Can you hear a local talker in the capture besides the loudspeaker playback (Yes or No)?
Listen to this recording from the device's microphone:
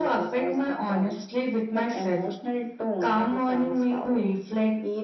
No